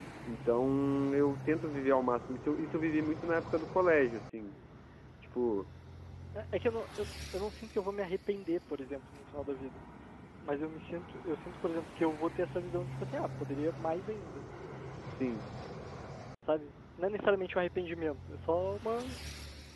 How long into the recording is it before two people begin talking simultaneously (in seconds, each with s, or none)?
none